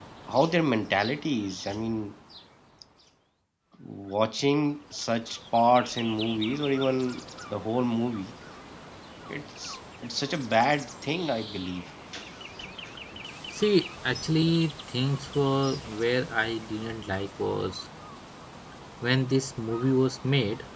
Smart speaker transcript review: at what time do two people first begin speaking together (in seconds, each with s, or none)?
none